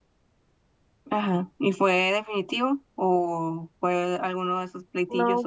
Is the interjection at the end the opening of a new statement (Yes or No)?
Yes